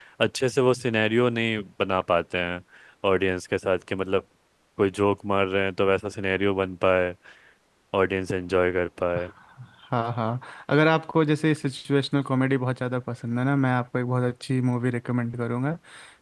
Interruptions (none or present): none